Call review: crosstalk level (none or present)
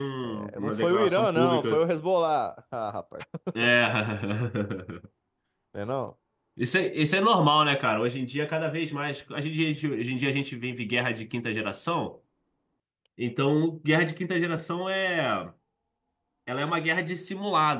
present